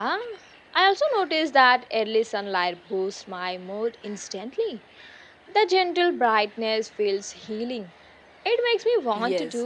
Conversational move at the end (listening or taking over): taking over